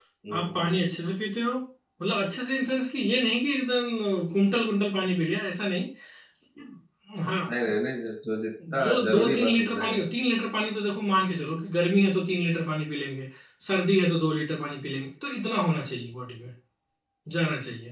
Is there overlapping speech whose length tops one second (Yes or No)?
Yes